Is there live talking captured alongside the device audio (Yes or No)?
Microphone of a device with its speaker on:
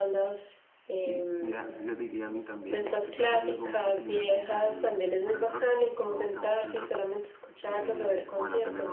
Yes